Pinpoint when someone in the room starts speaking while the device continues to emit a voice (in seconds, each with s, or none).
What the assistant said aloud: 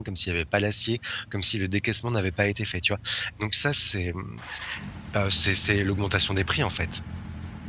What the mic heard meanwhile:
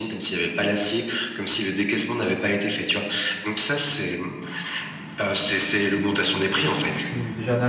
6.8 s